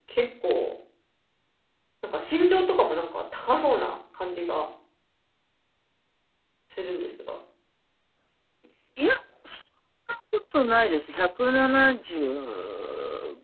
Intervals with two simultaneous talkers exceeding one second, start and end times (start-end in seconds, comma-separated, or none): none